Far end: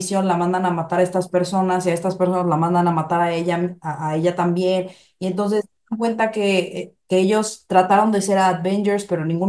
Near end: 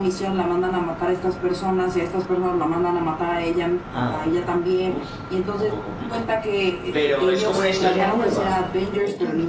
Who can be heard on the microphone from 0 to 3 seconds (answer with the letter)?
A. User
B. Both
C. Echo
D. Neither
C